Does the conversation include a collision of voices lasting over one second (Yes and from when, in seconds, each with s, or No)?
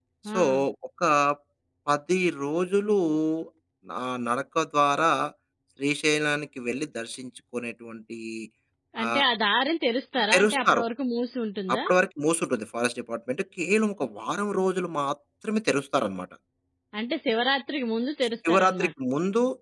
No